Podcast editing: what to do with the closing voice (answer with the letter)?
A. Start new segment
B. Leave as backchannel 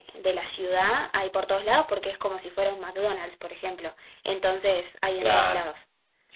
A